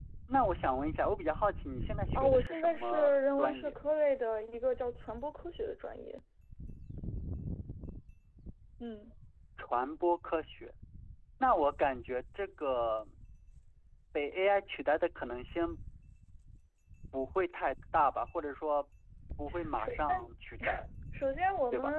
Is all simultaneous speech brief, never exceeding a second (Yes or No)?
No